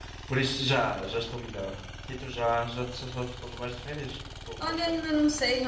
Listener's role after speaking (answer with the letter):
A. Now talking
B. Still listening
A